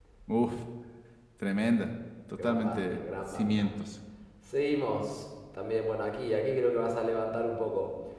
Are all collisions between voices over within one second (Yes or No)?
No